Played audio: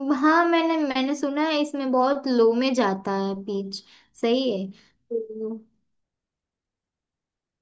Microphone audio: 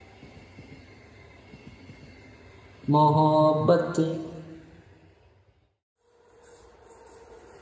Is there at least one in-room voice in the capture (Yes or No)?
Yes